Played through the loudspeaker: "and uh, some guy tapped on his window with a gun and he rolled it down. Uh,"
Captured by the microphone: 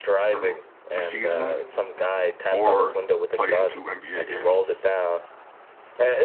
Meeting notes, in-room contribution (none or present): present